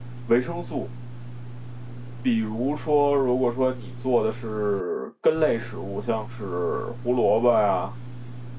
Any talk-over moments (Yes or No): No